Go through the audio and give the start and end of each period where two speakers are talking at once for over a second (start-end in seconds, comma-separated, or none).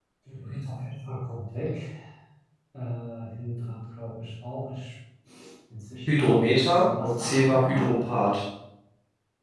6.2-7.9